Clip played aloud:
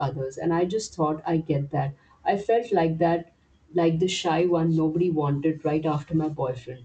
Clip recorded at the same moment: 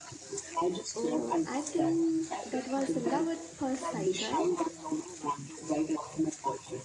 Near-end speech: present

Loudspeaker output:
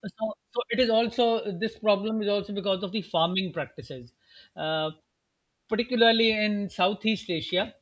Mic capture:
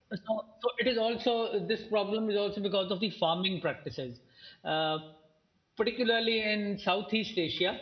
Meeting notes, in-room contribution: none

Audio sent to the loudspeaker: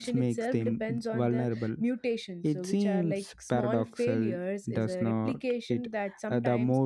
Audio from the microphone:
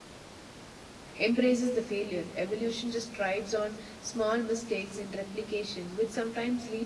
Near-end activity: present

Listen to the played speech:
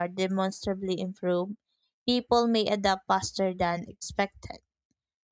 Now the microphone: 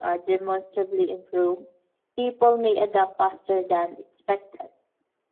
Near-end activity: none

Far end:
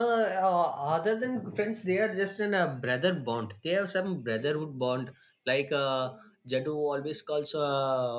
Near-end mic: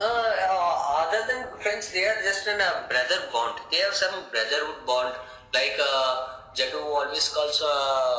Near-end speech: none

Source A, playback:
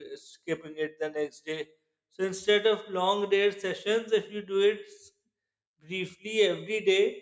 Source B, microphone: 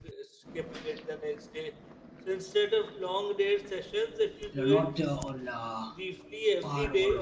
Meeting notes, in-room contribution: present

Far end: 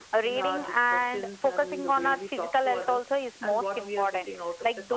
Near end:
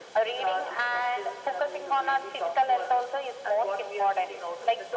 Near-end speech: none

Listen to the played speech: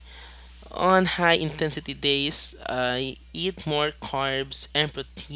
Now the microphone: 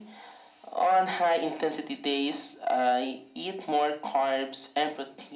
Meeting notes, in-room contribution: none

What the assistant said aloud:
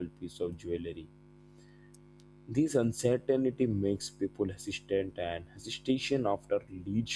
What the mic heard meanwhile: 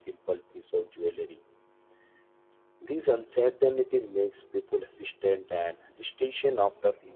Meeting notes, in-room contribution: none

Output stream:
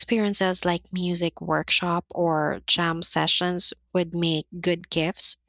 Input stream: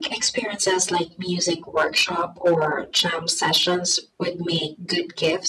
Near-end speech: none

